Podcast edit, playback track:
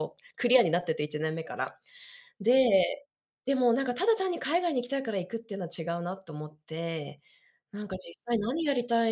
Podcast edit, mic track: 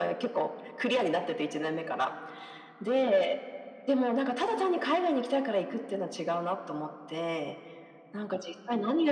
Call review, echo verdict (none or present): present